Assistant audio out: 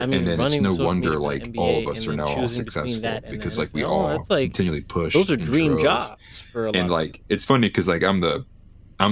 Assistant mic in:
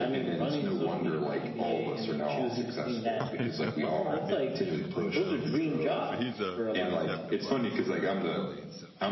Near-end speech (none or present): present